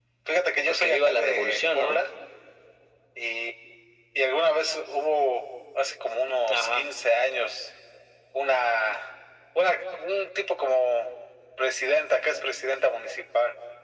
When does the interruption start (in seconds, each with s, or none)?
0.7 s